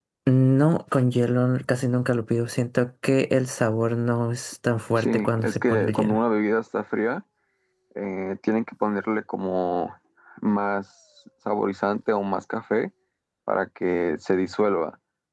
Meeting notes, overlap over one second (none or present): present